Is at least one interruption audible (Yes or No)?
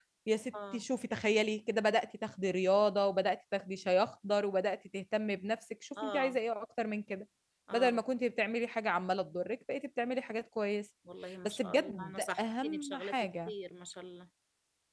Yes